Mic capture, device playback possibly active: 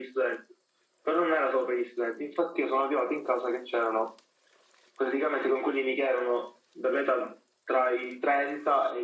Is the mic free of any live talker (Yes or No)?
Yes